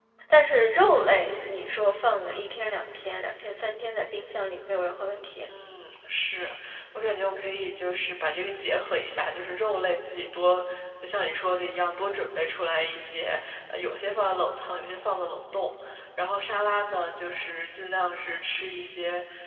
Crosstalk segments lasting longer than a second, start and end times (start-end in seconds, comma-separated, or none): none